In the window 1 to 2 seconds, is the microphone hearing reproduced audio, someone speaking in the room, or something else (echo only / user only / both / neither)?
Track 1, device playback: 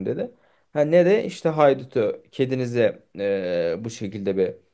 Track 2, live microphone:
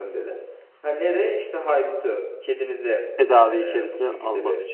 echo only